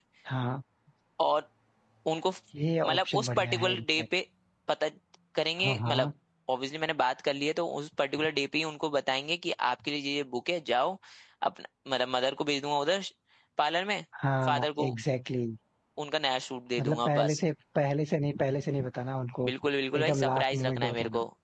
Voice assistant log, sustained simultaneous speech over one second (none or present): present